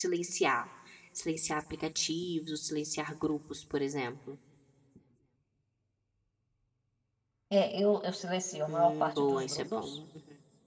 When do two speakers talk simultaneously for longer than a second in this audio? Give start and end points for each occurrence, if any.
8.7-10.0

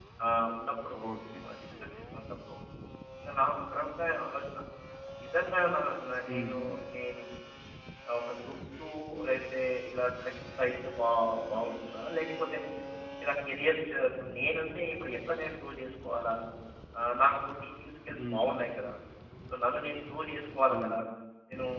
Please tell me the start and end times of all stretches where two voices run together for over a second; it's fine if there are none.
none

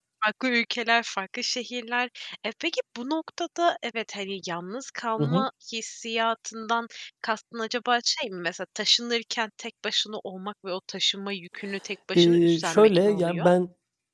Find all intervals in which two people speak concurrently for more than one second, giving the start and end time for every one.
12.2-13.5

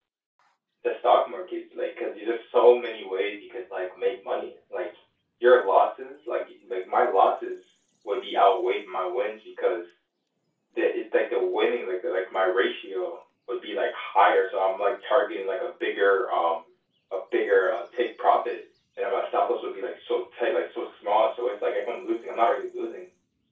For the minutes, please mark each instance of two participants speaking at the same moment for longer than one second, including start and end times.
none

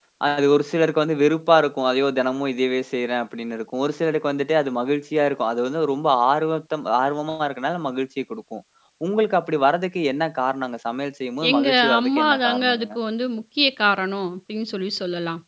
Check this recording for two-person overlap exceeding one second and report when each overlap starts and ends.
11.5-12.9

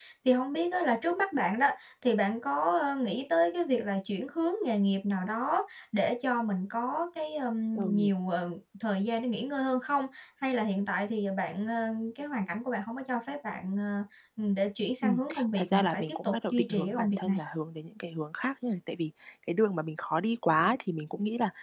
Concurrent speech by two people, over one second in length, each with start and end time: 15.0-17.4

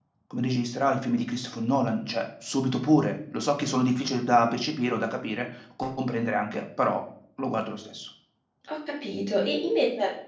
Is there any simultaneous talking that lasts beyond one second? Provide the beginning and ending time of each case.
none

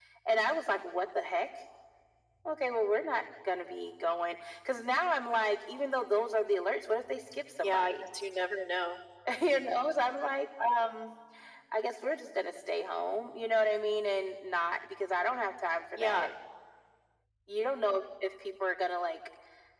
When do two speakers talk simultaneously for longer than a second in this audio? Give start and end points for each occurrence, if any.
none

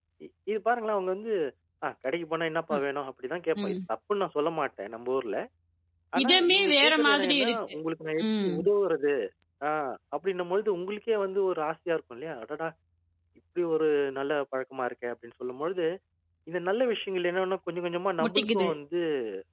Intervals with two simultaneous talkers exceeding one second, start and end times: 6.2-7.7

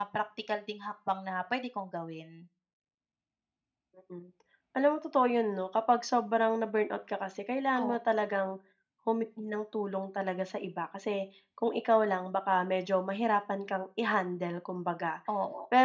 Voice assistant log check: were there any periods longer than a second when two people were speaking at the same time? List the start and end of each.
none

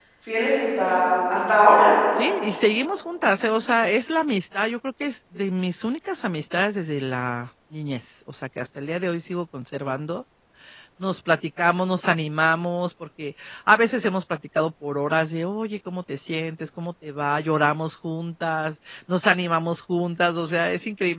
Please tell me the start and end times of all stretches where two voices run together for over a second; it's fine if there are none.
none

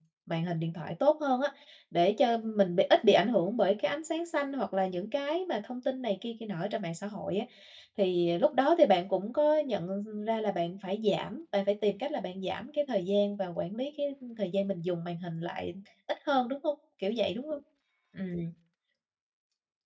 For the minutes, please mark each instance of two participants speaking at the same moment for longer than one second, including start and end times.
none

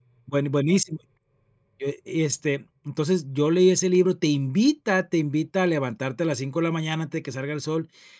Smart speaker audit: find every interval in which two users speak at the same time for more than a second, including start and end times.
none

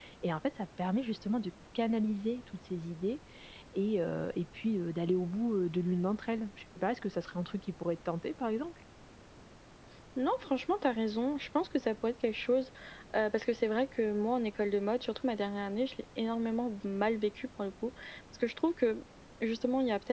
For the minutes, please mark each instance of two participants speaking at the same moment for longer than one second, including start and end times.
none

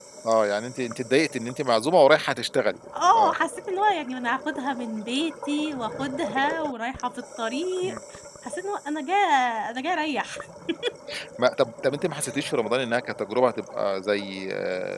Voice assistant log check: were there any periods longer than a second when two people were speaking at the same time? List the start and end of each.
none

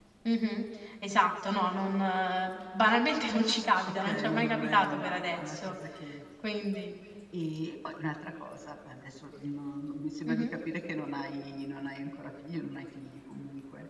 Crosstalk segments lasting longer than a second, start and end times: 4.0-5.8

